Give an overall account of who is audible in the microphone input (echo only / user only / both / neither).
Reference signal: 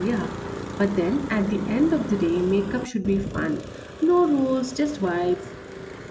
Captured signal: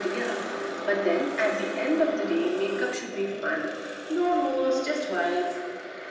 echo only